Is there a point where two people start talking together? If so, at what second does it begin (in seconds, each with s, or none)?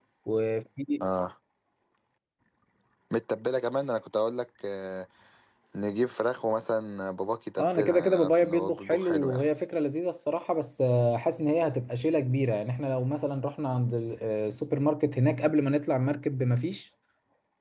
7.6 s